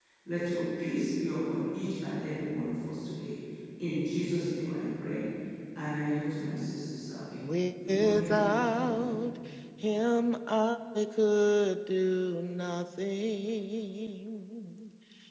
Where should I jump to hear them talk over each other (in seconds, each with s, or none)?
7.9 s